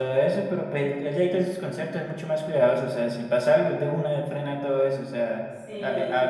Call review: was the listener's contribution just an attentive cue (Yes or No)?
Yes